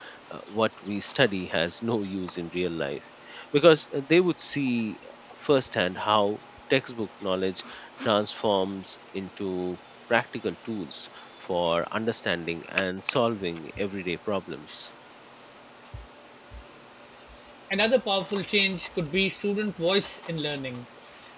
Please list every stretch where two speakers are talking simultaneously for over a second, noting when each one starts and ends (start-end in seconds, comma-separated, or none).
none